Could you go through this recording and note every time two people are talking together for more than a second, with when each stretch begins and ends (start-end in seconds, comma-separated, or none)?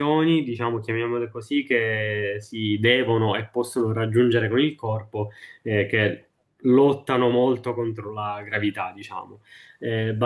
none